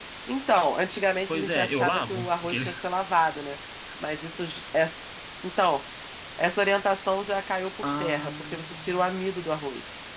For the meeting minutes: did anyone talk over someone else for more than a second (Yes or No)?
Yes